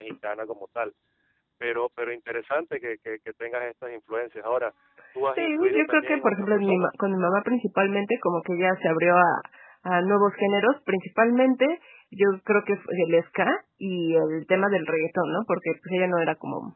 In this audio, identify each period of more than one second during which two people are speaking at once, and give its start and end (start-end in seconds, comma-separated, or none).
5.4-6.9